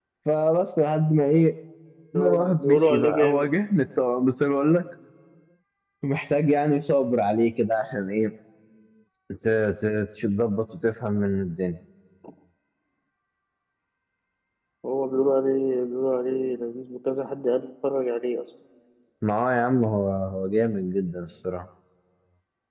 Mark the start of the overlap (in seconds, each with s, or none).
2.2 s